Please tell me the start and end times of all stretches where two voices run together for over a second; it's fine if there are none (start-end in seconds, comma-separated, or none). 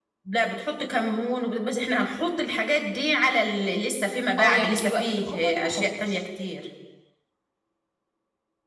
4.4-6.2